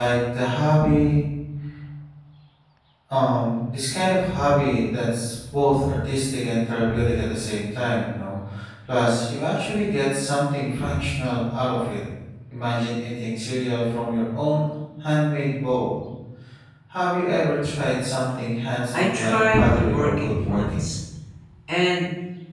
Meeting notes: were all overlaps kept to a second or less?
No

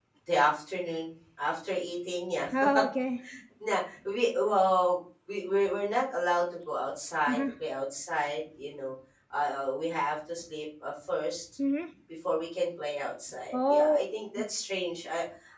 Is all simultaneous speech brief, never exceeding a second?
Yes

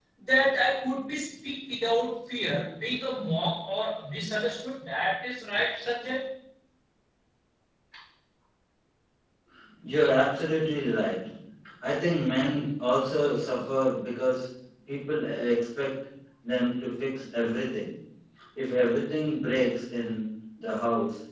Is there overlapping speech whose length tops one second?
No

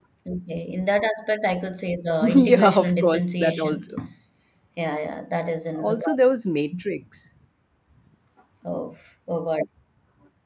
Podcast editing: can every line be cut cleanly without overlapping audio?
No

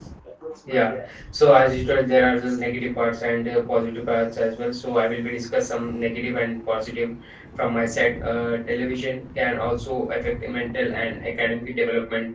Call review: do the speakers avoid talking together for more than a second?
No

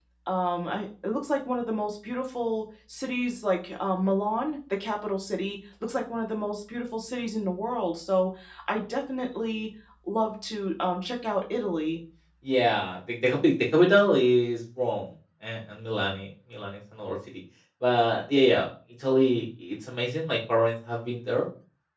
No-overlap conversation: Yes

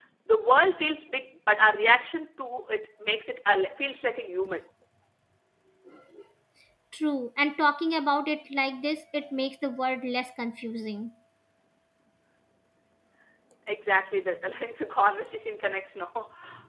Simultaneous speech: No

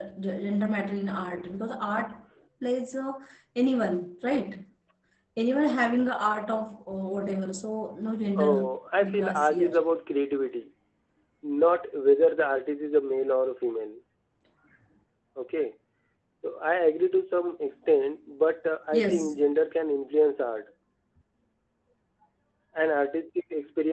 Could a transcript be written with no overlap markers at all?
No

